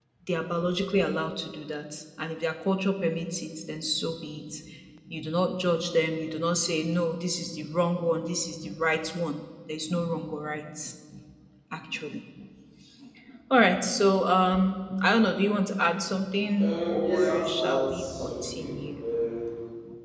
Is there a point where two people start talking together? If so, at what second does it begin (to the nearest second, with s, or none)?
17 s